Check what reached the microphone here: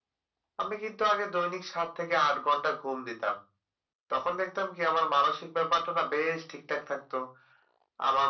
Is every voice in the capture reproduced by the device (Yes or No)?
Yes